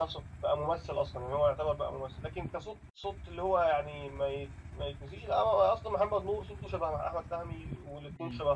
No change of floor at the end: Yes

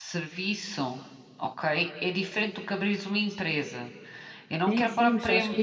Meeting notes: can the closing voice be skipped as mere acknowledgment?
No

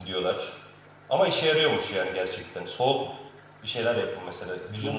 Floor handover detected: Yes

